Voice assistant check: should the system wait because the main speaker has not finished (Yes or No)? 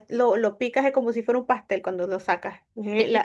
Yes